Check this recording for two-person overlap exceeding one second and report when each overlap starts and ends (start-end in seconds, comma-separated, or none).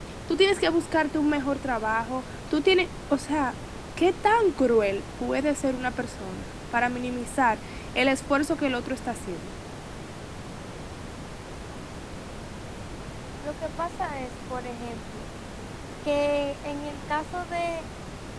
none